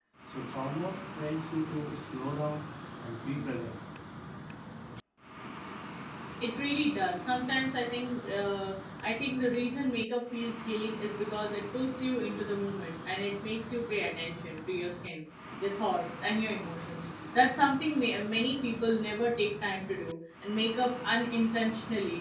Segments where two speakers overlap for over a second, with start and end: none

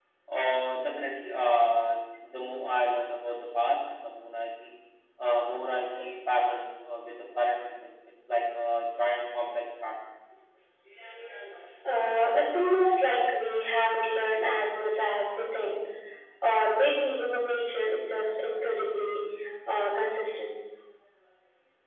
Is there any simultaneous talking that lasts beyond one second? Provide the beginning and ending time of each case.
none

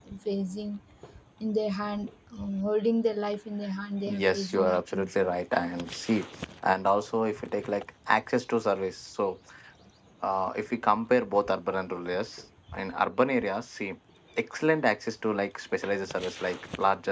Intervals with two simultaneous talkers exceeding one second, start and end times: 4.1-5.3

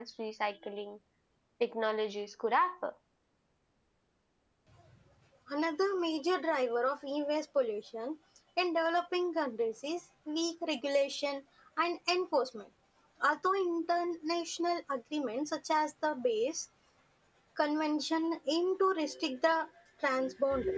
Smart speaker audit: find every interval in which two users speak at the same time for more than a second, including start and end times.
none

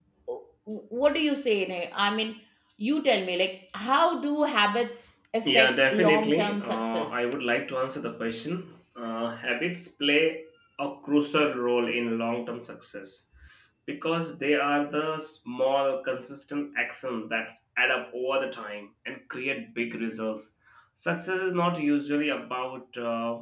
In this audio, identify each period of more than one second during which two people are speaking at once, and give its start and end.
5.4-7.2

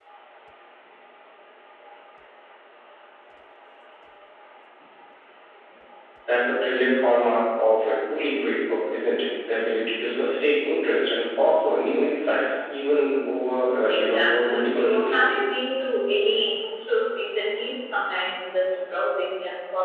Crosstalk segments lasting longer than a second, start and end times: 13.9-15.2

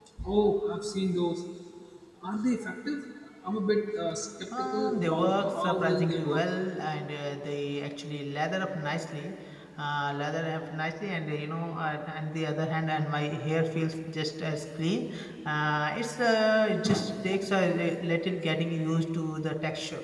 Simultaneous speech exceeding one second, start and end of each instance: 4.6-6.4

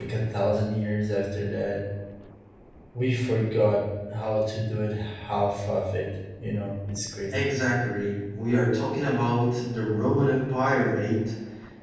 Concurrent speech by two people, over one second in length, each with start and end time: none

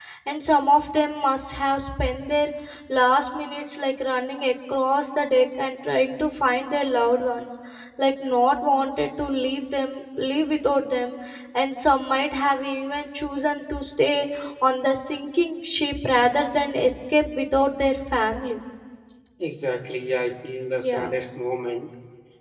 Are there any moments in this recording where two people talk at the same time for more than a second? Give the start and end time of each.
none

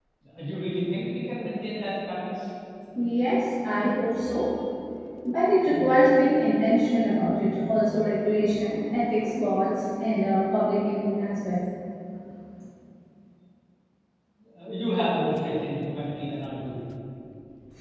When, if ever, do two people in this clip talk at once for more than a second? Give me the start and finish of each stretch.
none

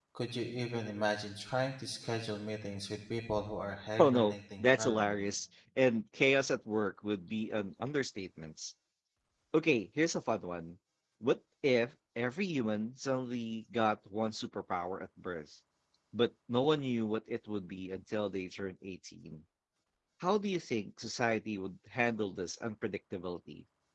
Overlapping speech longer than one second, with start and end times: 4.0-5.2

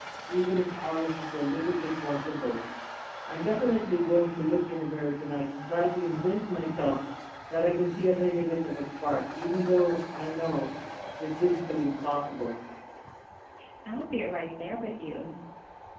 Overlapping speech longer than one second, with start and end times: none

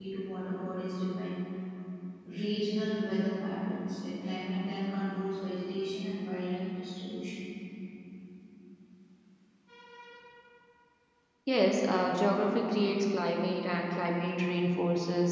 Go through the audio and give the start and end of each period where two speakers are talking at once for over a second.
none

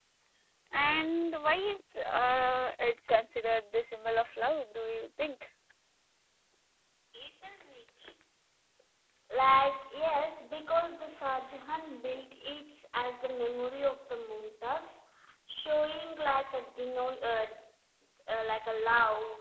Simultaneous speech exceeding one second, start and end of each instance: none

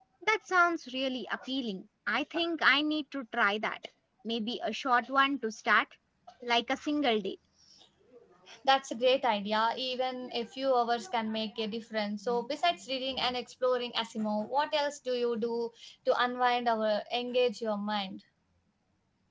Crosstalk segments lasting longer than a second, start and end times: none

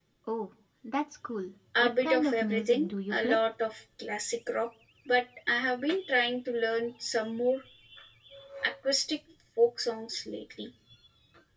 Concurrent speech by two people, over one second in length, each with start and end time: 1.8-3.4

